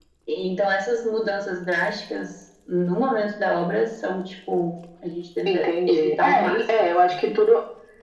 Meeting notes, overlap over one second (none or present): present